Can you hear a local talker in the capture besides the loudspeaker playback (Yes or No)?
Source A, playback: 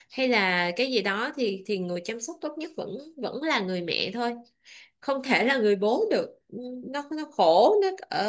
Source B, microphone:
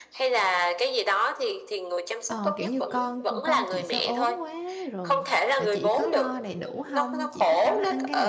Yes